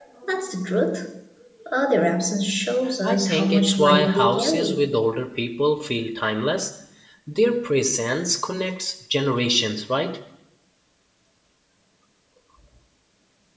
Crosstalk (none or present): present